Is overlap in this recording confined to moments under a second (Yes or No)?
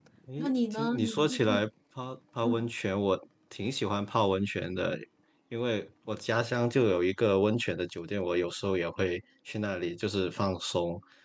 No